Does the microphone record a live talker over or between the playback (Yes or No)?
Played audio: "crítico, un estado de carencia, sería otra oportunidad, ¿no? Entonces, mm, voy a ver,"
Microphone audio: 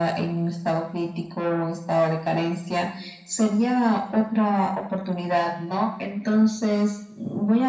No